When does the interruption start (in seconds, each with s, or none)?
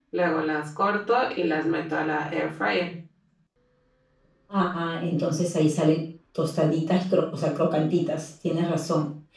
none